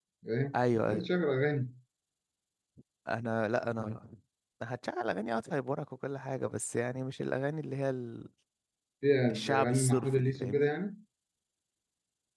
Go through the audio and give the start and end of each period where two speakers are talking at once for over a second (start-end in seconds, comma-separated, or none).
9.3-10.7